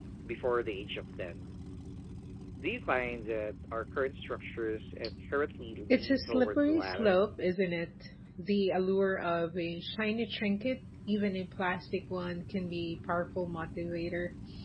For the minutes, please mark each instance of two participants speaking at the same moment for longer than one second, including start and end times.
5.9-7.2

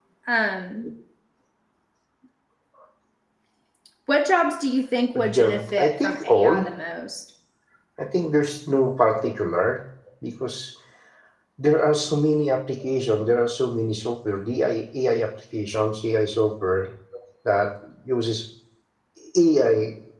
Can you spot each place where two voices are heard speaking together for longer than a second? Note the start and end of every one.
5.2-6.6

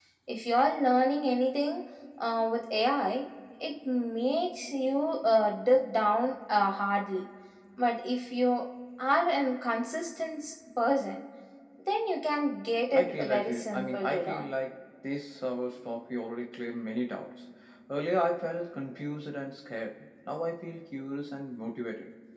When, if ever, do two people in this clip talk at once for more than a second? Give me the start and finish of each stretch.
12.9-14.5

